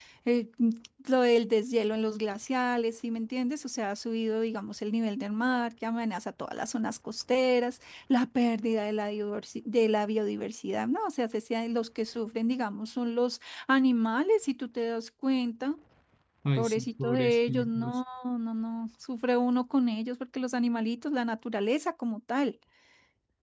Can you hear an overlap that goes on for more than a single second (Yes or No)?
Yes